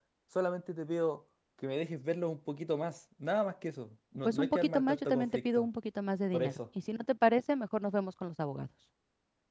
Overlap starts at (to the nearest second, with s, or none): 4 s